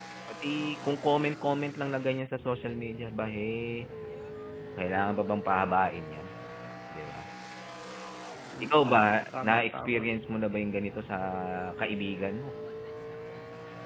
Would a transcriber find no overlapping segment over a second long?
No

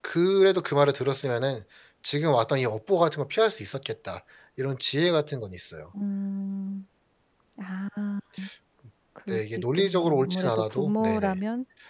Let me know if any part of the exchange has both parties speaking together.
Yes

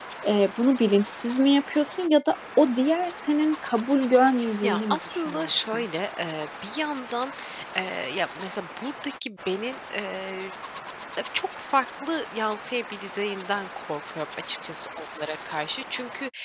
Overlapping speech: Yes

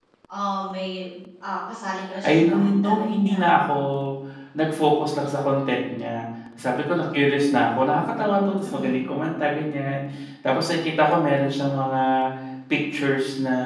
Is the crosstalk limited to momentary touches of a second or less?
No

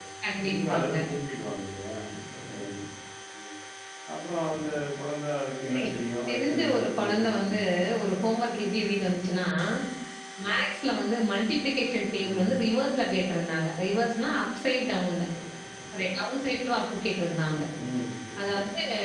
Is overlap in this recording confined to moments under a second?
No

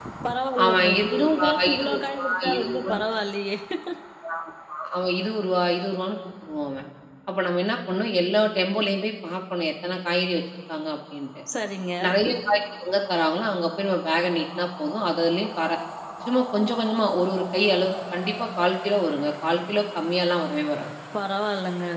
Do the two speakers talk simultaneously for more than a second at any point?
Yes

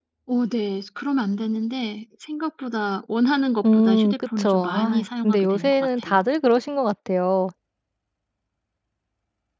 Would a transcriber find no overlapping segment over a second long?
No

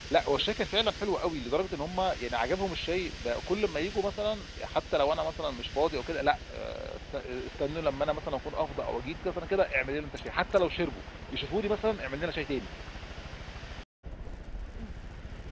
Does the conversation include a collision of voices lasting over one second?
No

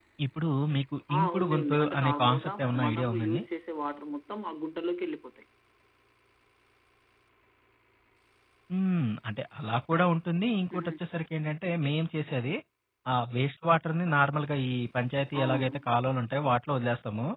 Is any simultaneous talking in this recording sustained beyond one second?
Yes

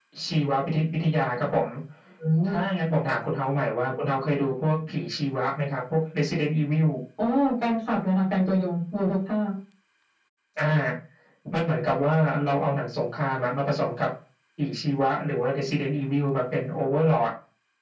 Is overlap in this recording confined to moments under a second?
Yes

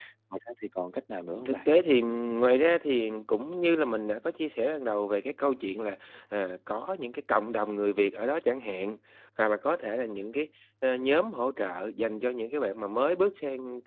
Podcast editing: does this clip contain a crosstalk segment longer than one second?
No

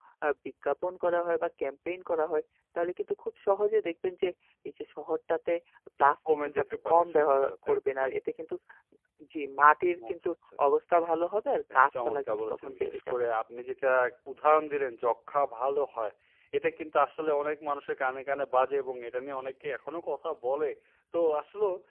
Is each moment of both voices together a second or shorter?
No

